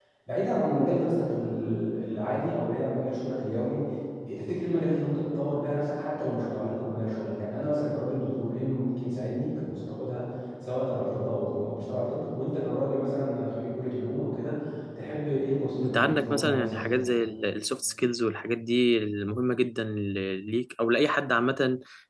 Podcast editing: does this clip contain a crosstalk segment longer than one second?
Yes, from 15.8 s

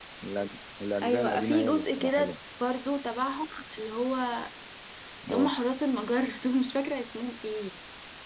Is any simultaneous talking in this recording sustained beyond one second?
Yes, from 1.0 s

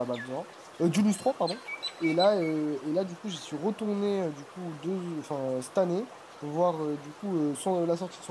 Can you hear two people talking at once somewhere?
No

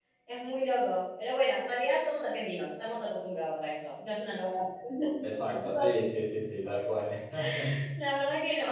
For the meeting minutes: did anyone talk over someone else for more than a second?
No

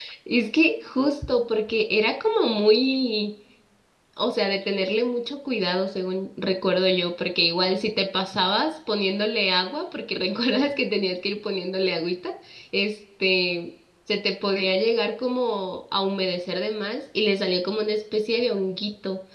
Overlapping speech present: No

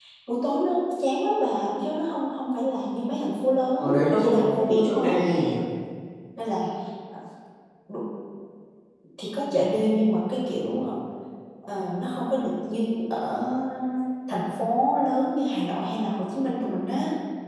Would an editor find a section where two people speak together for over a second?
Yes, from 3.8 s

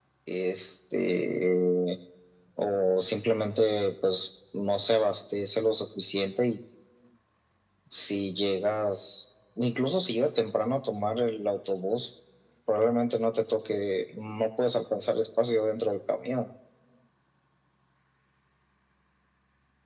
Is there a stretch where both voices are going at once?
No

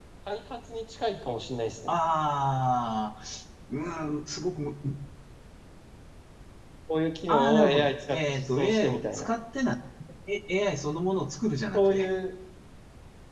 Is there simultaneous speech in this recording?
Yes, from 7.3 s

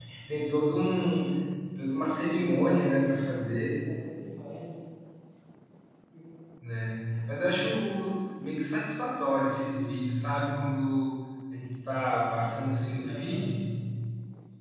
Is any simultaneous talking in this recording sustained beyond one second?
No

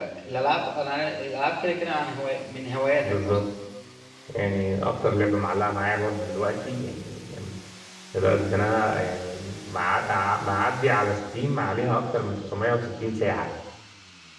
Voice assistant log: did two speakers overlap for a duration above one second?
No

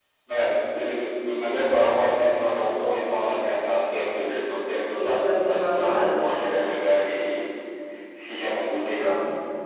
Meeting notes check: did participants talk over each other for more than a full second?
Yes, from 4.8 s

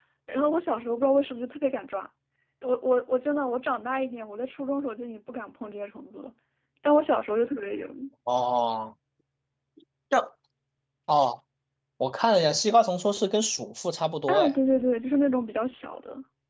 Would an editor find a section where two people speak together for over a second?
No

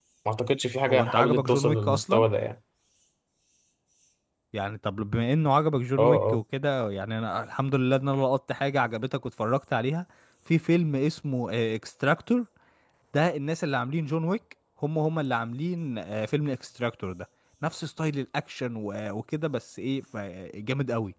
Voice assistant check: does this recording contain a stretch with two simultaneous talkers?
Yes, from 0.9 s

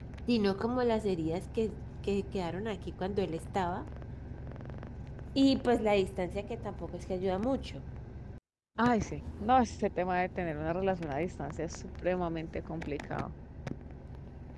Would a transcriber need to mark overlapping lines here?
No

